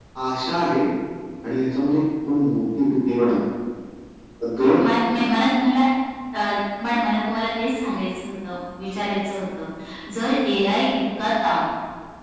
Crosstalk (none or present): none